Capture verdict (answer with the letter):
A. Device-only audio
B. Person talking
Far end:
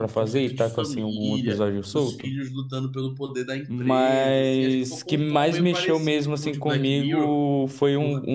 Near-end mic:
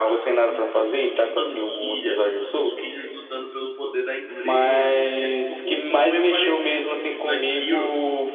A